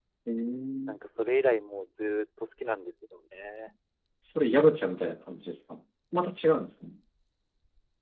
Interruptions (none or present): none